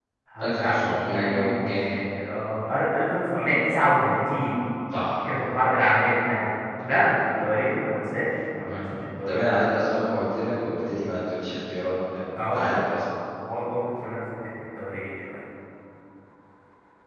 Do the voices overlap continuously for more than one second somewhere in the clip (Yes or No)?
Yes